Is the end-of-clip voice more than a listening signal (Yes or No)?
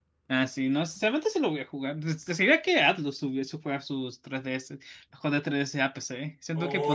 Yes